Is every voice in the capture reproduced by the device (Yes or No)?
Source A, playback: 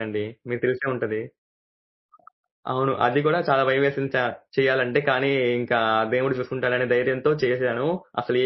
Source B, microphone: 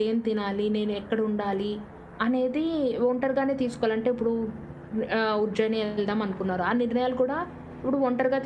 No